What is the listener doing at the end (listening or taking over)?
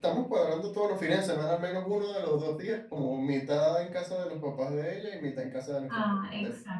taking over